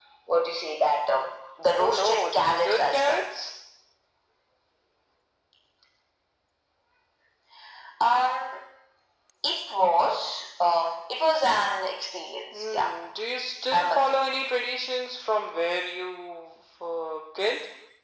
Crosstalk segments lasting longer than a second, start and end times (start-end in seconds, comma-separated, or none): 1.8-3.2